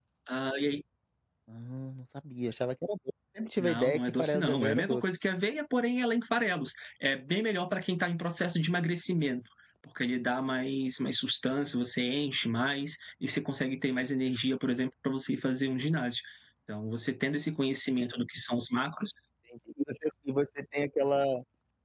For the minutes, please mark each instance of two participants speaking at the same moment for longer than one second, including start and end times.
3.6-5.0

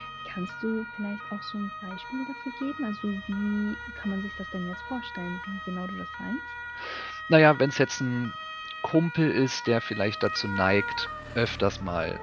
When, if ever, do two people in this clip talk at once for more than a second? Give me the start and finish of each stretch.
none

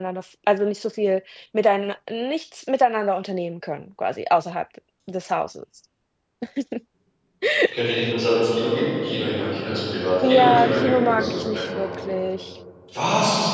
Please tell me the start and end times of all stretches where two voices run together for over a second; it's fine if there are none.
10.2-11.8

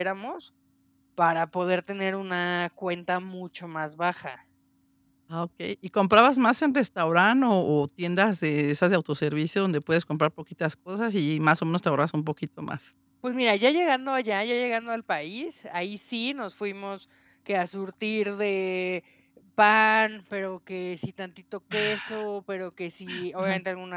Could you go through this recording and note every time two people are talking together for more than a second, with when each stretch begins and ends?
none

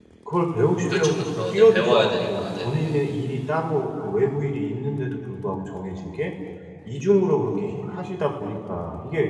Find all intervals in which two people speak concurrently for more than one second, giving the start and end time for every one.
0.9-3.0

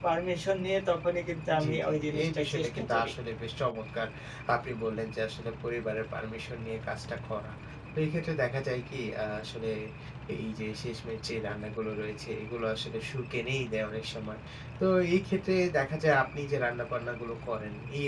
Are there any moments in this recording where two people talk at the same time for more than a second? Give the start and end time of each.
1.6-3.1

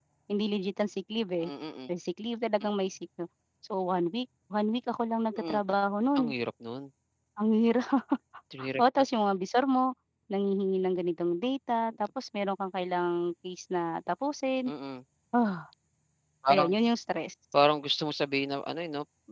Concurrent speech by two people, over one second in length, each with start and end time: none

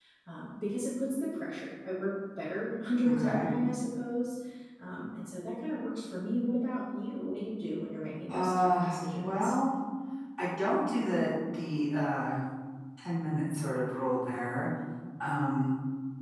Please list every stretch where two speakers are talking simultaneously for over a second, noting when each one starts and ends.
8.3-9.5

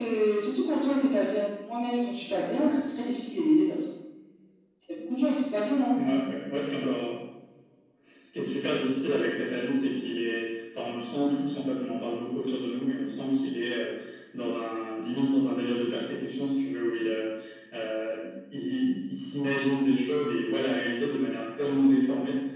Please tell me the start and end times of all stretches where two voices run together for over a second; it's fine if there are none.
none

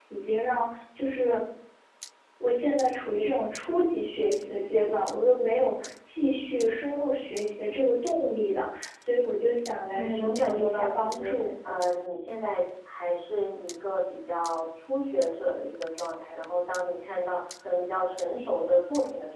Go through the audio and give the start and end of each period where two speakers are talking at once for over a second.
9.9-11.3

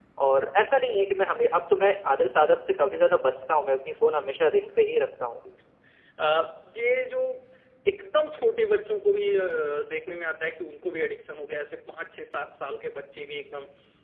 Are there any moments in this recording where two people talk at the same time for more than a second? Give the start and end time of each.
none

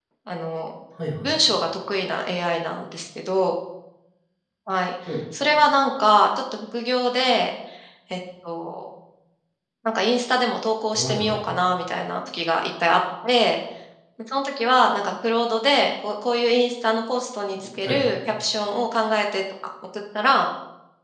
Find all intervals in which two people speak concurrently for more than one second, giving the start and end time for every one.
none

